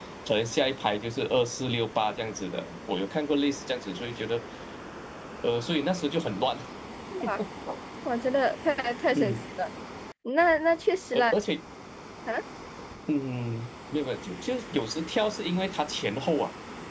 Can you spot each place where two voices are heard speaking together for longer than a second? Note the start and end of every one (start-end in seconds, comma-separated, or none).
none